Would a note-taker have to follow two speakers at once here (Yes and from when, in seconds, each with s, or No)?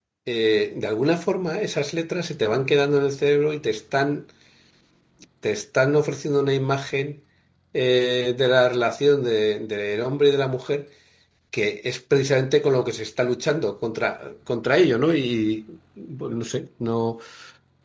No